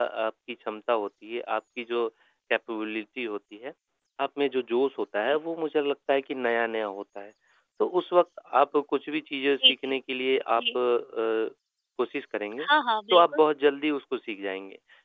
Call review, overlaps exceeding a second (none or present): none